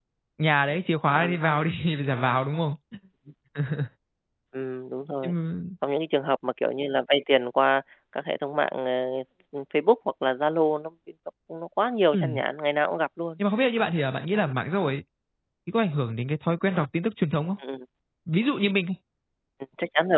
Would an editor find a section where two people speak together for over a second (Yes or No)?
No